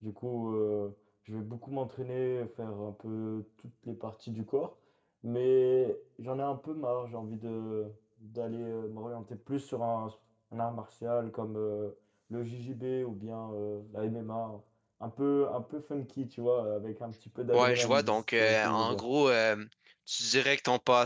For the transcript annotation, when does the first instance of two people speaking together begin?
17.5 s

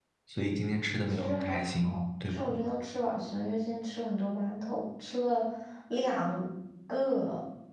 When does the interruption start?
1.1 s

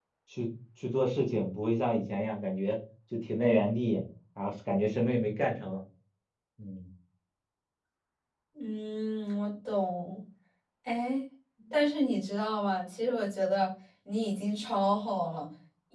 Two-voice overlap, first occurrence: none

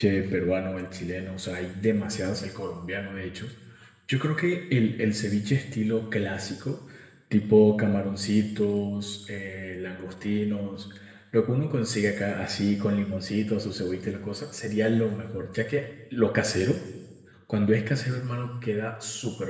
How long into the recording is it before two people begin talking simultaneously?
none

